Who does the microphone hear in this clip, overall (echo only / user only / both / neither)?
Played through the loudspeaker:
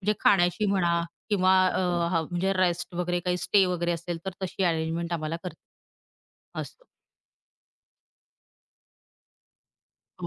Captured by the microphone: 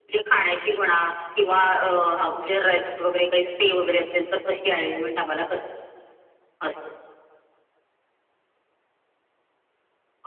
echo only